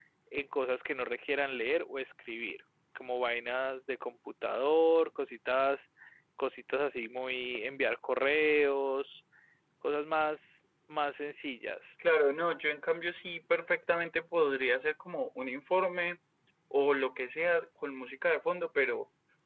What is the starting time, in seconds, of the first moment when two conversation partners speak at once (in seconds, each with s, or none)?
none